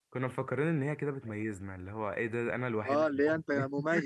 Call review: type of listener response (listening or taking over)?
taking over